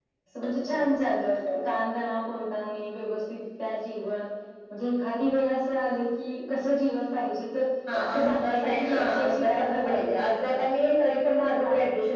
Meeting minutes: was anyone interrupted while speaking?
Yes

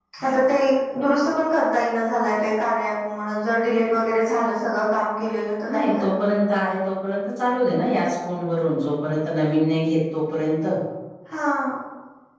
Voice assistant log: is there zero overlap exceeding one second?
Yes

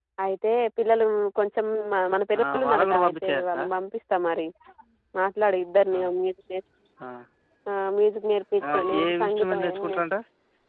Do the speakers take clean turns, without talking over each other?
No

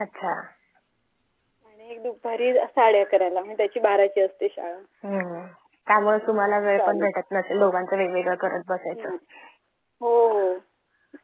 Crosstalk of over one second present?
No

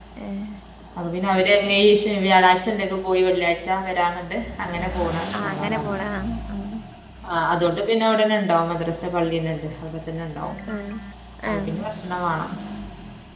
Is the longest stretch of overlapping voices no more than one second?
Yes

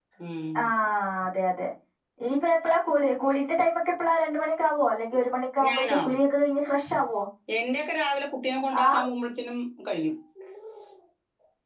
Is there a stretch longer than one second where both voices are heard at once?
No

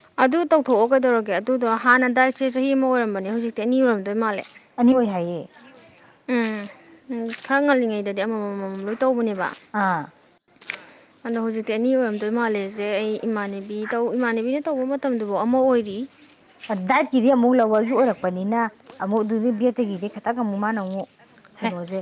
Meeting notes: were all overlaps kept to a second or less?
Yes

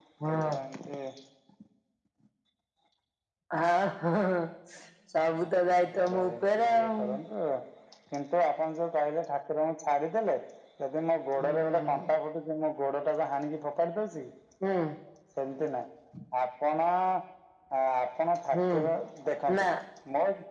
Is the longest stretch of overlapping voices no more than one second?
No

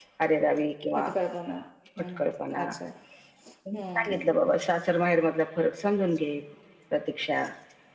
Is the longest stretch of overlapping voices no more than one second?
Yes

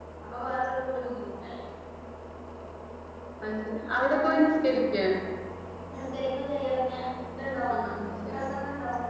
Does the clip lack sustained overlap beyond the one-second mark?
Yes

